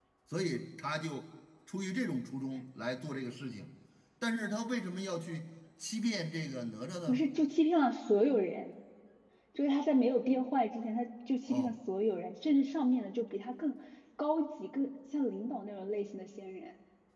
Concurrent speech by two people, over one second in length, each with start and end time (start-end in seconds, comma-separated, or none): none